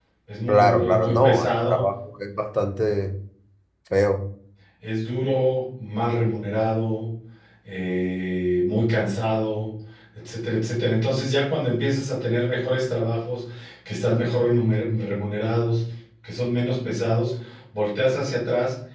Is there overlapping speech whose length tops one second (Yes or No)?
Yes